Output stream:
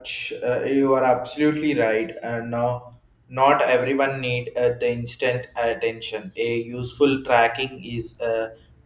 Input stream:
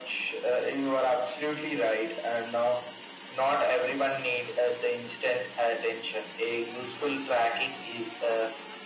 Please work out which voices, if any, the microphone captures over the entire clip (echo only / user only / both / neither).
echo only